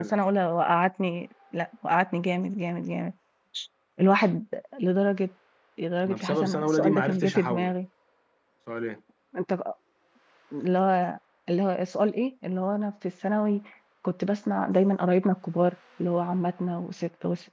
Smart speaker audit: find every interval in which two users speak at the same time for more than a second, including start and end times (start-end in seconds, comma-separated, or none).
6.1-7.7